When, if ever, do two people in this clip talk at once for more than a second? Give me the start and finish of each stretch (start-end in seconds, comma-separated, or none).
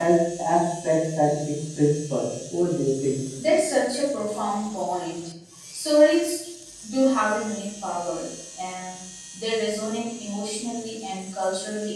none